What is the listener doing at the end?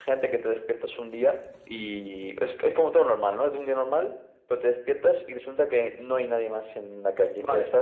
taking over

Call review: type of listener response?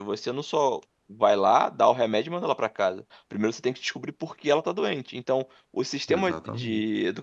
listening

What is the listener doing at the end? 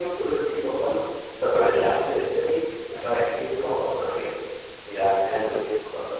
taking over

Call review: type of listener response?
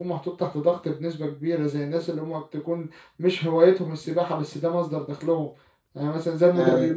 listening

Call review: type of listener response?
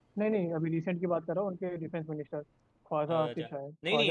taking over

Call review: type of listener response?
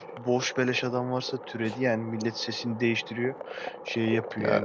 listening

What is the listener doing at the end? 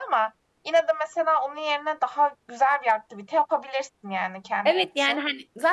taking over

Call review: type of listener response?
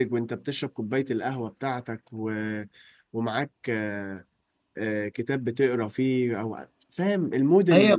taking over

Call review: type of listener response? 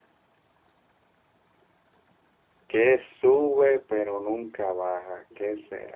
listening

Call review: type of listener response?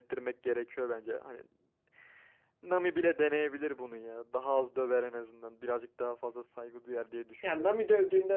taking over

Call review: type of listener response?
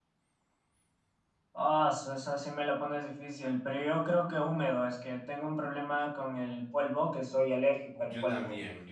taking over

